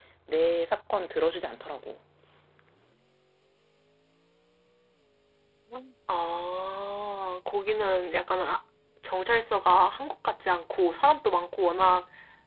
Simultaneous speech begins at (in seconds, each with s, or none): none